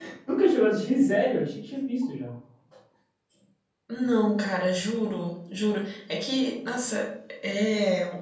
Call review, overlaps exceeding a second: none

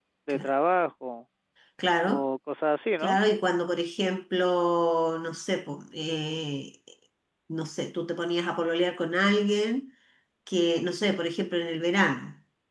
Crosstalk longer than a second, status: none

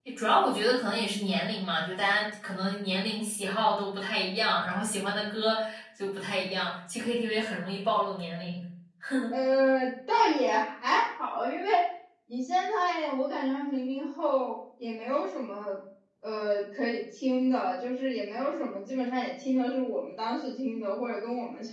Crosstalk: none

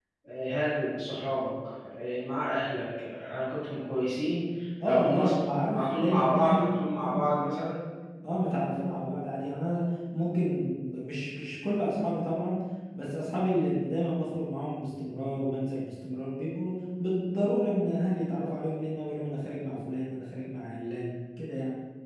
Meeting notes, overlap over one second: present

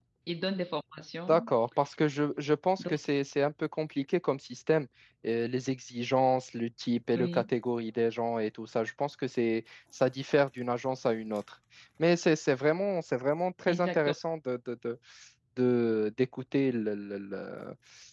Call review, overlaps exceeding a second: none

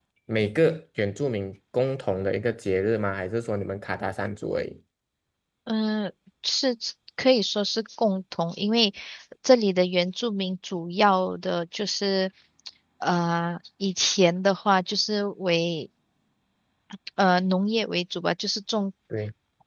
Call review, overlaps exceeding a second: none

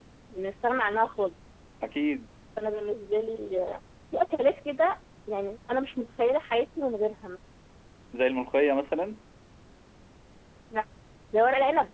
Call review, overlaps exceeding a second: none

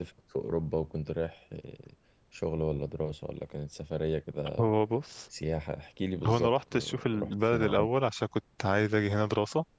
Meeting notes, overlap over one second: present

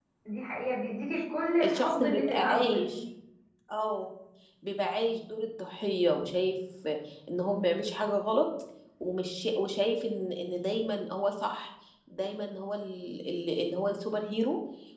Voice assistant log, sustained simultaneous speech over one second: present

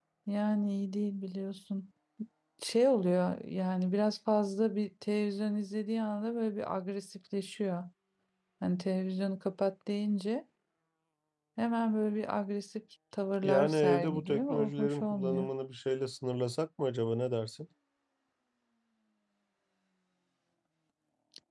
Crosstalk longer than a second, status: present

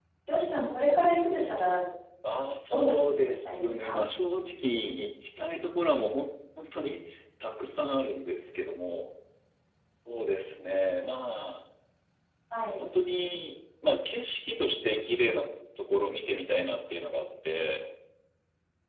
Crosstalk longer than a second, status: present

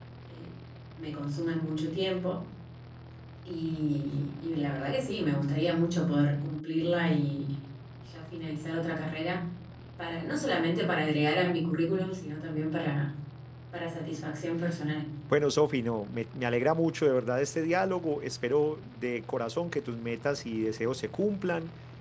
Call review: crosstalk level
none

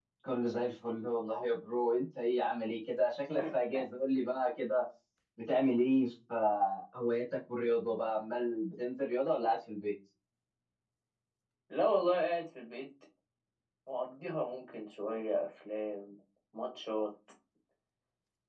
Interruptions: none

